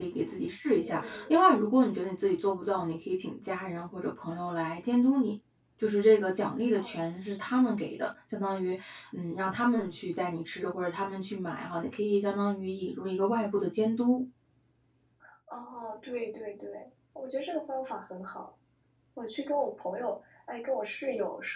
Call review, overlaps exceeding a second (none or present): none